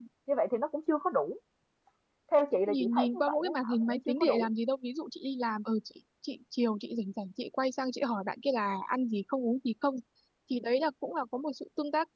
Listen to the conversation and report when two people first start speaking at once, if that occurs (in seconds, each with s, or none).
2.7 s